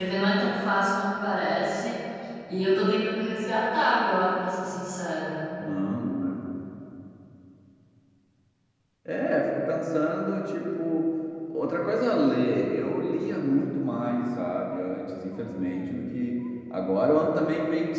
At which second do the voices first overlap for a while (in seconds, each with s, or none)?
none